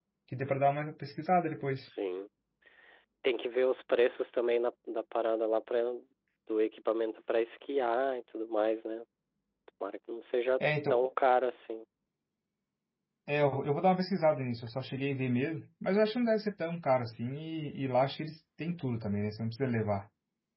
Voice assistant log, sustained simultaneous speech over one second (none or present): none